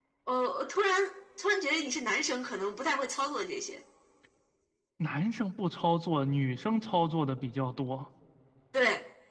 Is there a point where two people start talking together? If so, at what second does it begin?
none

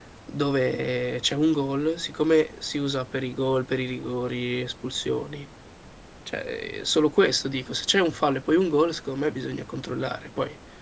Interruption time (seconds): none

